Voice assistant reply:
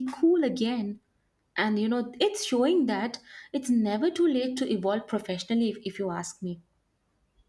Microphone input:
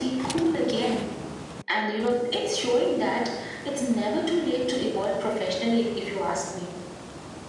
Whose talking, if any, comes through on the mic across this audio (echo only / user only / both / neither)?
echo only